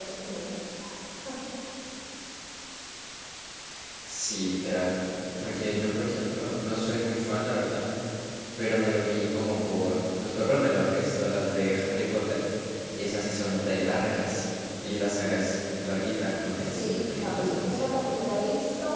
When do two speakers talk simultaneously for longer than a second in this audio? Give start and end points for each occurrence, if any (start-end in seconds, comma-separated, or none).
16.6-17.9